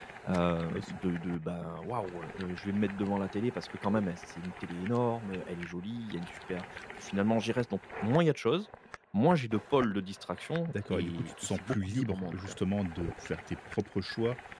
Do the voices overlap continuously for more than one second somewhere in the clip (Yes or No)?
Yes